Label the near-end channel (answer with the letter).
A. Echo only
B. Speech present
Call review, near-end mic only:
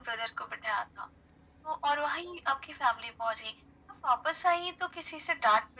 A